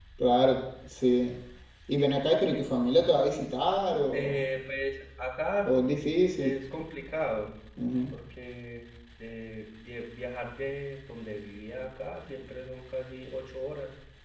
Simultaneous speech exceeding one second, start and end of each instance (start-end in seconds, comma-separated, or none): none